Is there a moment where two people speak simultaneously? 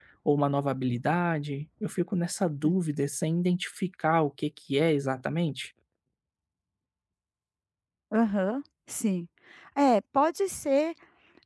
No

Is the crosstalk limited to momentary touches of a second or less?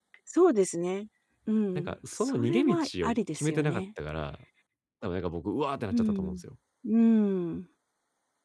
No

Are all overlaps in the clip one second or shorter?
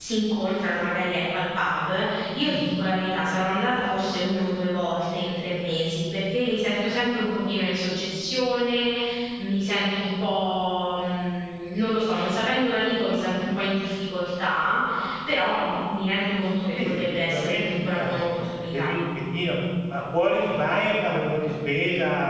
No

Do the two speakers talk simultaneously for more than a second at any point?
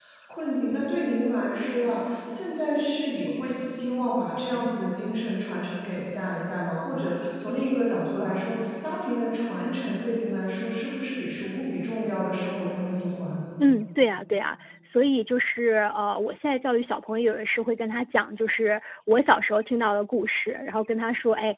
No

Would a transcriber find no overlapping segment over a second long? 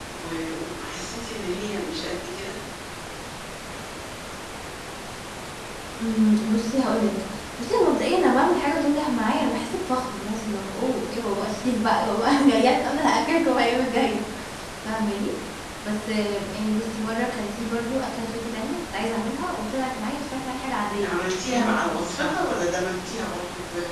No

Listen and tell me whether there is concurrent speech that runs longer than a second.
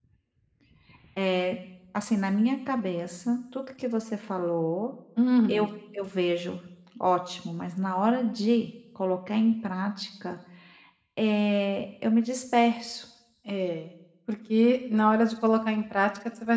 No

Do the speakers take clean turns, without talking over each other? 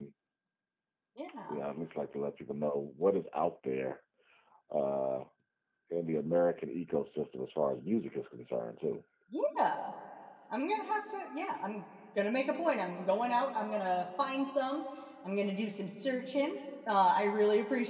Yes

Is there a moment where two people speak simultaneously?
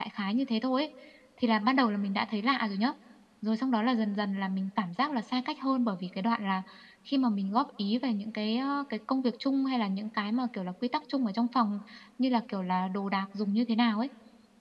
No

